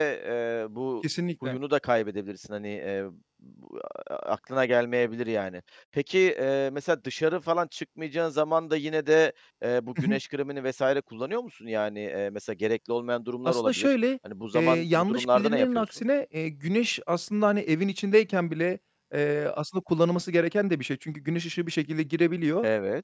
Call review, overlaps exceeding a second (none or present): present